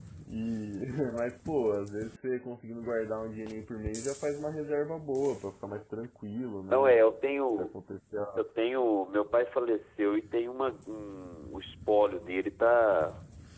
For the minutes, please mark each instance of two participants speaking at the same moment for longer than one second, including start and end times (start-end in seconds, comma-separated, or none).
none